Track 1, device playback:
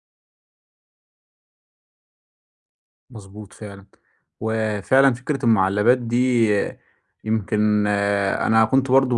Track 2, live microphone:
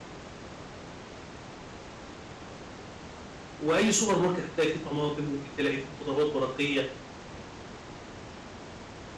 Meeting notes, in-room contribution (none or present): present